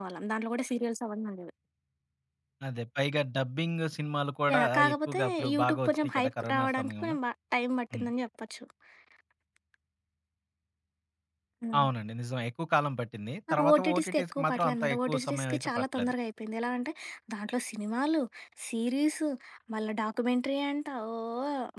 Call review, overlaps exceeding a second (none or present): present